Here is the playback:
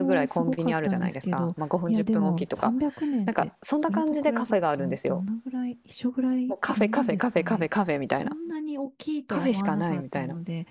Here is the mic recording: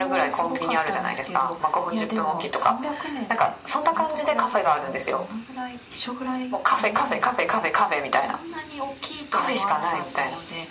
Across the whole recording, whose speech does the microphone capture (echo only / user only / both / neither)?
echo only